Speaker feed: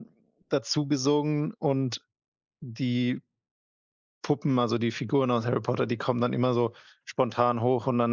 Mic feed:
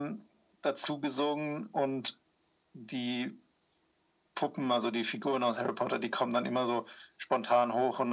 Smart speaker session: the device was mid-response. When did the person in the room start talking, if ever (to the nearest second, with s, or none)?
none